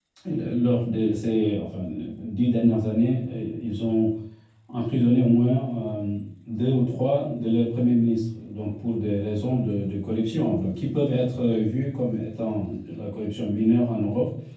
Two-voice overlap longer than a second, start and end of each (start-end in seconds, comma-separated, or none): none